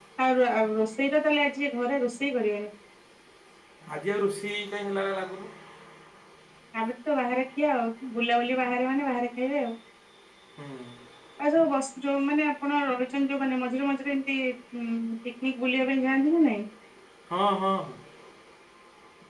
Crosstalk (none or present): none